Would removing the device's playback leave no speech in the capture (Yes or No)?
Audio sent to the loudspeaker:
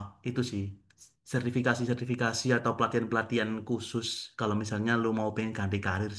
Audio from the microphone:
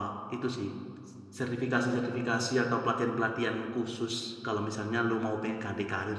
Yes